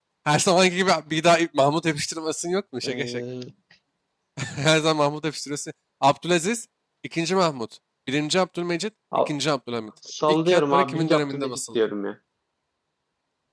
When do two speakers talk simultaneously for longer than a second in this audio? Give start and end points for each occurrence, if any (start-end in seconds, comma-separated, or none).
10.3-11.8